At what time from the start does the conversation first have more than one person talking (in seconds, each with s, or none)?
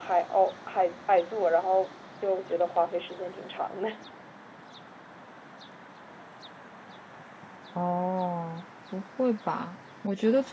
none